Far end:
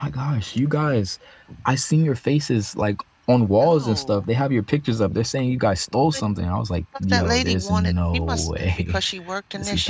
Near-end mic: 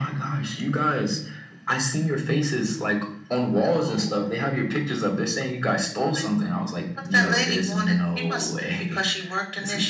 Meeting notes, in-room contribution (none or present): none